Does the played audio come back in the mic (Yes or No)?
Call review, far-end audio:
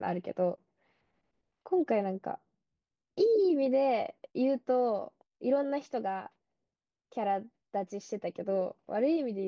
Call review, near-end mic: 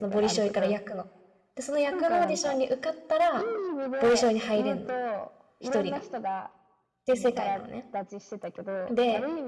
Yes